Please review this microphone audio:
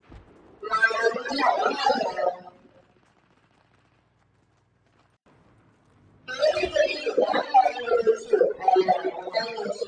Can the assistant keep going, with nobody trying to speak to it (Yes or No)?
Yes